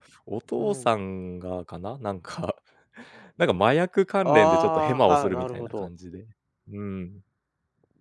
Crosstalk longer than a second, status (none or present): present